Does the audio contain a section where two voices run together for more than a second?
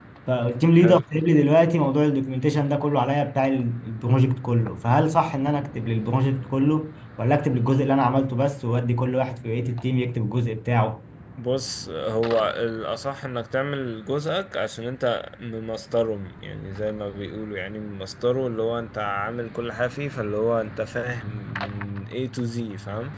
No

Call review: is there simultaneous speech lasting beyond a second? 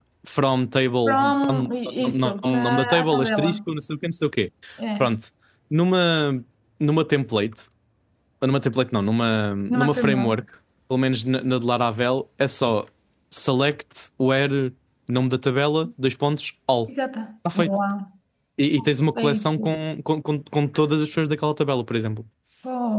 Yes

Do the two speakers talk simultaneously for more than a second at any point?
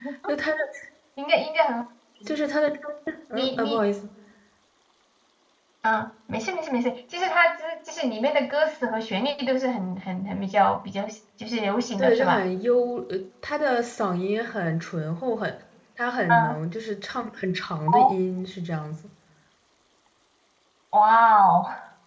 No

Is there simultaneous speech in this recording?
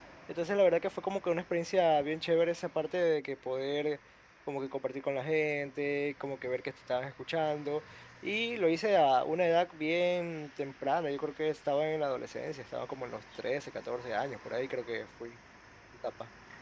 No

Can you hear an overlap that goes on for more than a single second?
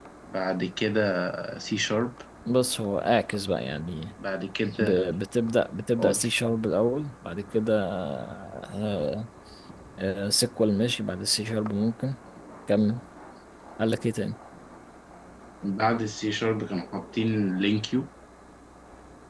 No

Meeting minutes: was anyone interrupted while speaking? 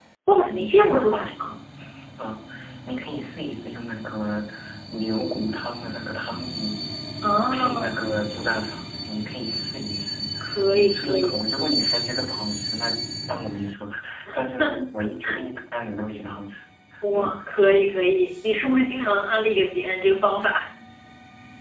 Yes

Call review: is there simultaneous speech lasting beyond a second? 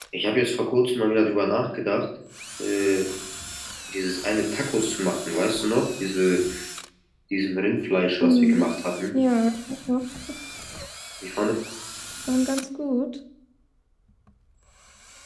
No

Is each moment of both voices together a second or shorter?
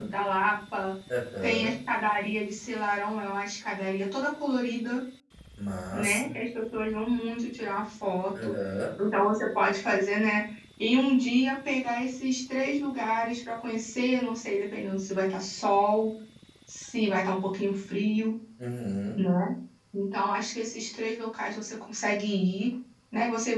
Yes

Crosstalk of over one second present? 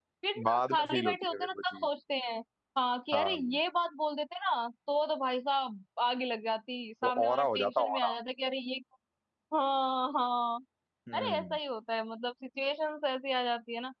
Yes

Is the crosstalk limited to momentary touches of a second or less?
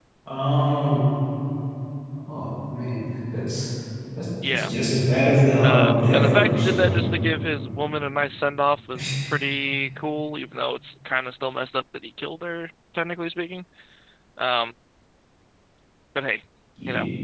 No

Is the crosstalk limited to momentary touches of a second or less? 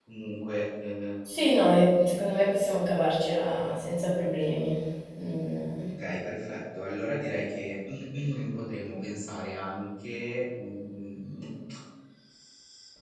Yes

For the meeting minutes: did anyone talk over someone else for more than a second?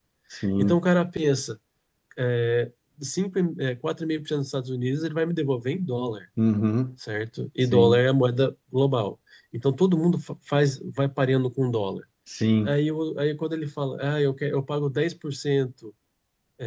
No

